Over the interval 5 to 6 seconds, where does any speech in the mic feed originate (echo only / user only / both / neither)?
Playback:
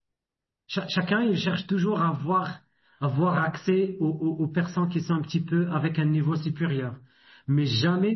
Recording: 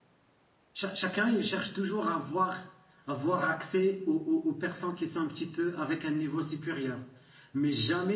echo only